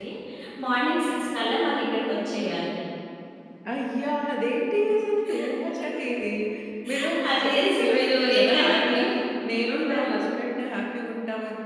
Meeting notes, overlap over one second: present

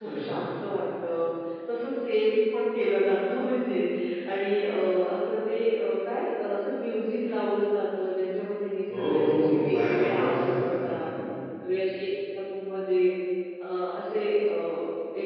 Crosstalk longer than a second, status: present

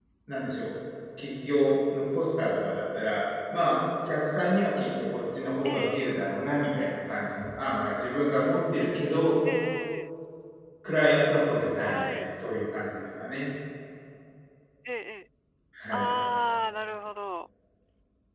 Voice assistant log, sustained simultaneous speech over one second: none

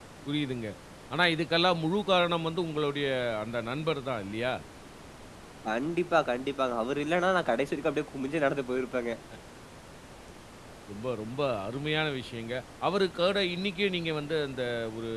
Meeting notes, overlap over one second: none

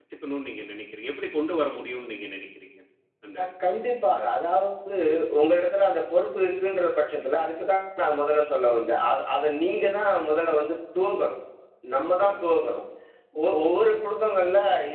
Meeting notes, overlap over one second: none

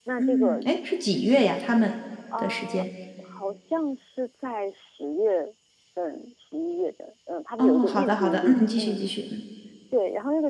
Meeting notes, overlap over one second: present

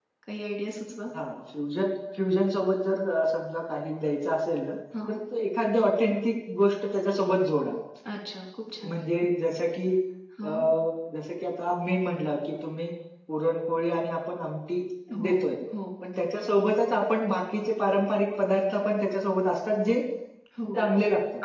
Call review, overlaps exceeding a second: none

